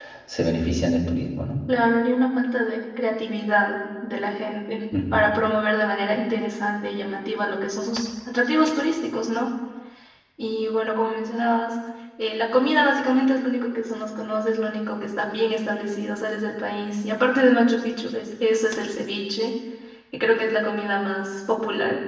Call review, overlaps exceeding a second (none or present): none